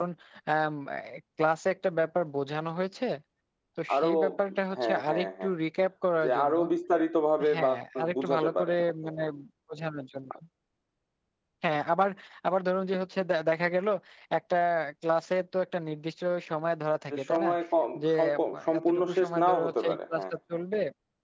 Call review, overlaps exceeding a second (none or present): present